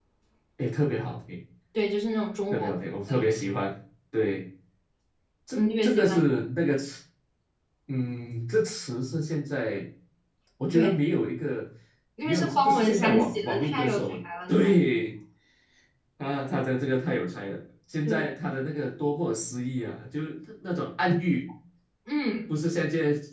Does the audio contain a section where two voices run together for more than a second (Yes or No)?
Yes